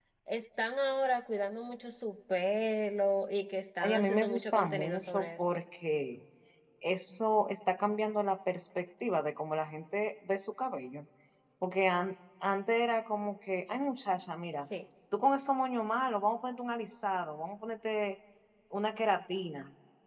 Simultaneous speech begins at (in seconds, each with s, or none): 3.8 s